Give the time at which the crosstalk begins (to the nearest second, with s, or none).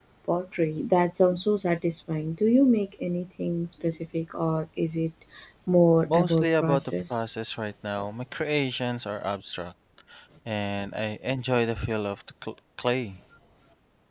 6 s